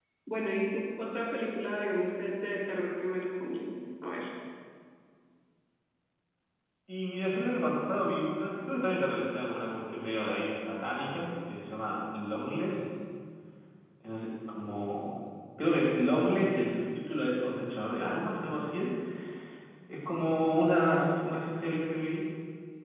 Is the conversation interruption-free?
Yes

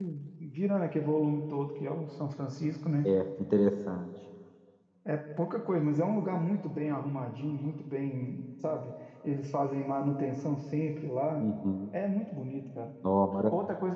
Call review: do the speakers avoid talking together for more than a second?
Yes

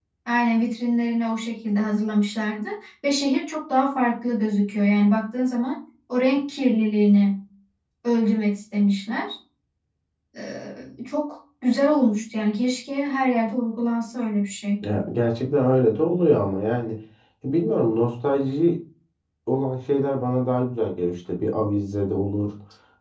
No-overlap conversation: Yes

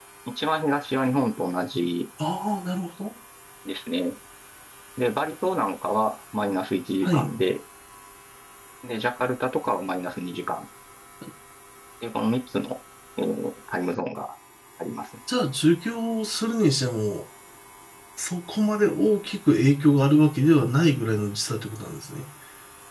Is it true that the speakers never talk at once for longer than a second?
Yes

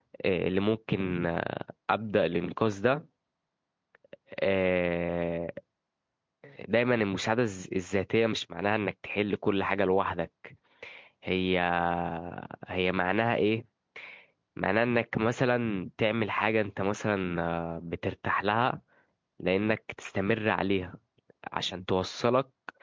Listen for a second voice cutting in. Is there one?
No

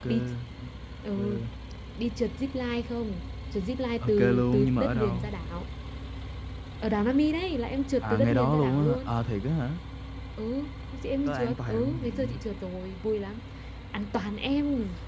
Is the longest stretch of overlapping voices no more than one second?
No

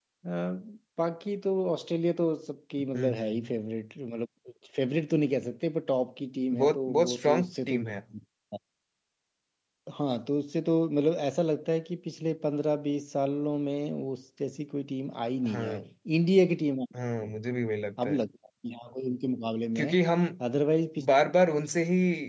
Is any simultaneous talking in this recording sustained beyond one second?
Yes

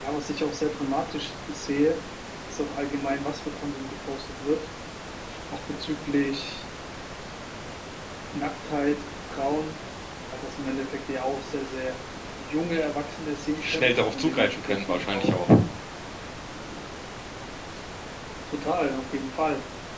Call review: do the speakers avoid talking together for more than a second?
No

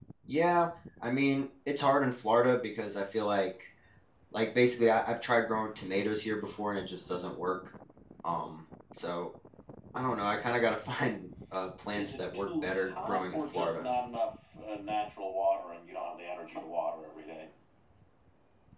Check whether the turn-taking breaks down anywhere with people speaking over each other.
Yes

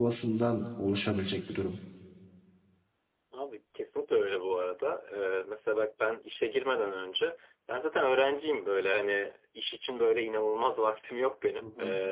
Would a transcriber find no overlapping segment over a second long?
Yes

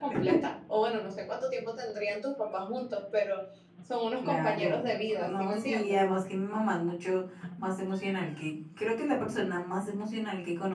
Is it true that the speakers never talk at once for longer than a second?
No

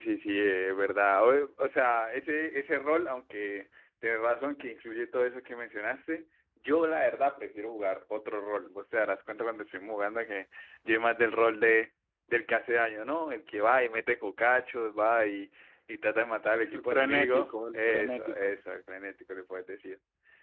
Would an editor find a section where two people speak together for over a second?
Yes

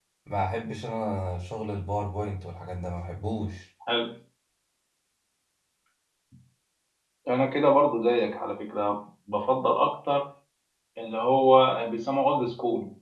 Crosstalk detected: No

